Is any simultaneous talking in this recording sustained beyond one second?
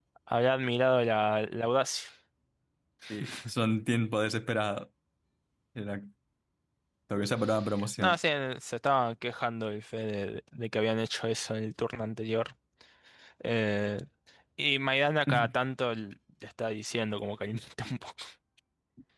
No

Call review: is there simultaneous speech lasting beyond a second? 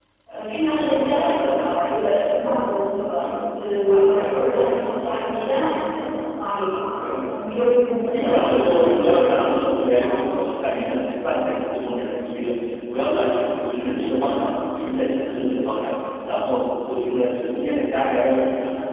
Yes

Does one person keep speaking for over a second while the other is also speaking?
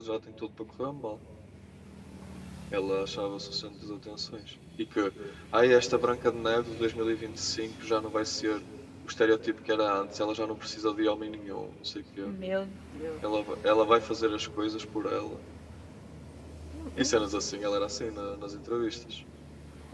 No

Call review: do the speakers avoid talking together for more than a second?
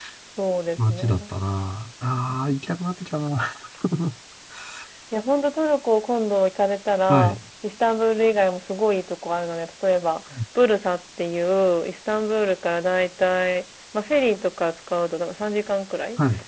Yes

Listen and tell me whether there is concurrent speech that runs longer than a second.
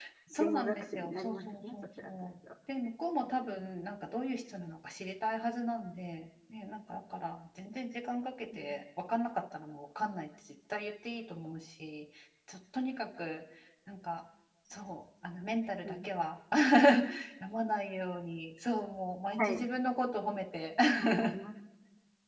Yes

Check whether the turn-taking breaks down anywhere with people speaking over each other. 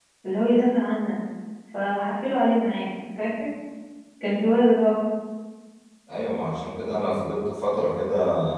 No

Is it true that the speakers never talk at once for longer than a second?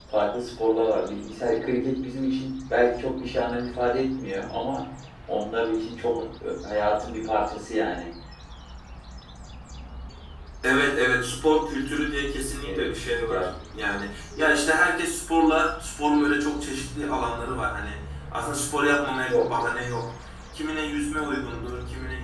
Yes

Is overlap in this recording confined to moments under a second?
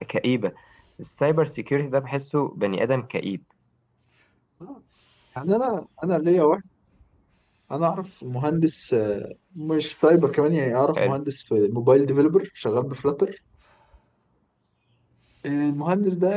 Yes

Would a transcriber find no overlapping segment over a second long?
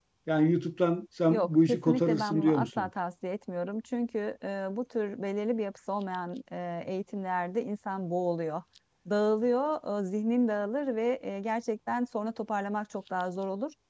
No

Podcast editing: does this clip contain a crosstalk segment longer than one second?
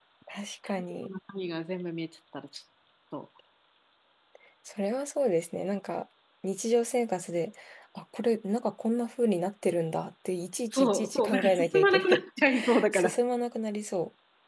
Yes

